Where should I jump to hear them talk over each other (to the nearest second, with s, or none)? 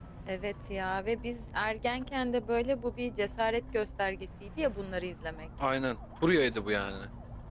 none